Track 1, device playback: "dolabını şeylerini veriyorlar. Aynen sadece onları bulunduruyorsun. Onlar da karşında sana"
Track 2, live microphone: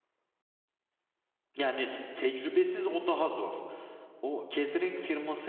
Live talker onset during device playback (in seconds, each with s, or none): 1.6 s